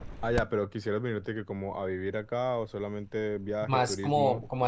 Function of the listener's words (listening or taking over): taking over